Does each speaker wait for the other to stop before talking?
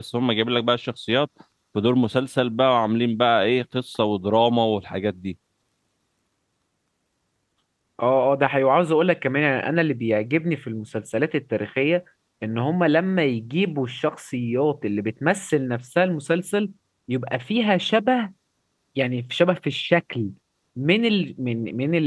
Yes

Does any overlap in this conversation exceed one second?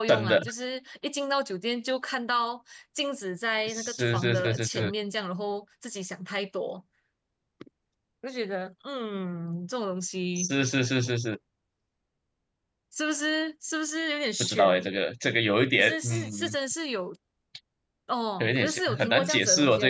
Yes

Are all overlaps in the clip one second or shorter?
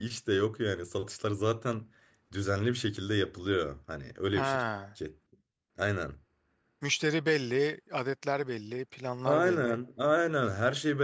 Yes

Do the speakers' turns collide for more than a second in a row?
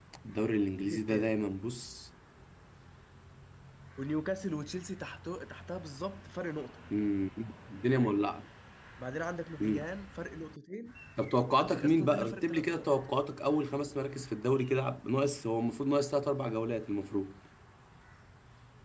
Yes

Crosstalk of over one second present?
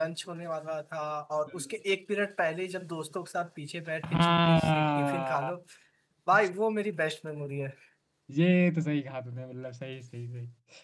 Yes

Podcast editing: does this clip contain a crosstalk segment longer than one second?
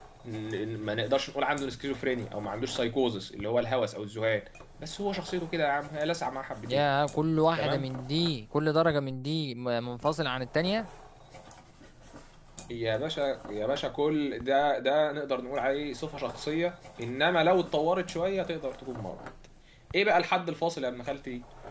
No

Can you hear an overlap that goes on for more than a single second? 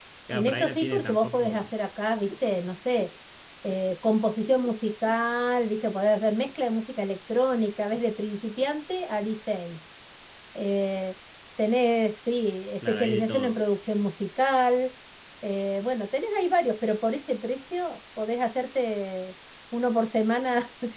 Yes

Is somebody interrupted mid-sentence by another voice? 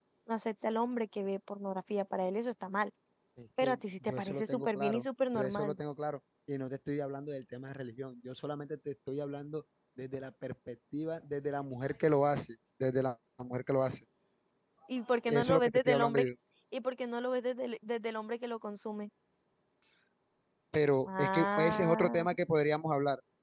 Yes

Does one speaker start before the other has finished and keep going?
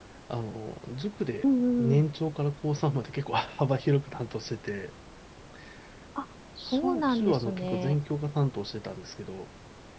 Yes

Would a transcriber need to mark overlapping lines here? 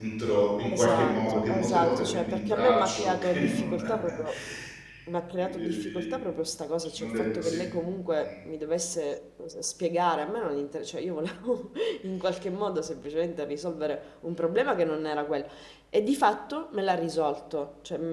Yes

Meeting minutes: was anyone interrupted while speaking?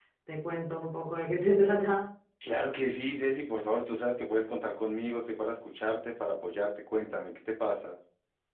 No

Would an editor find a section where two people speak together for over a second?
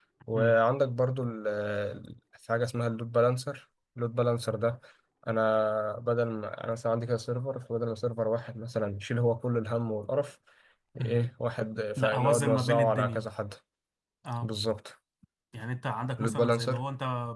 Yes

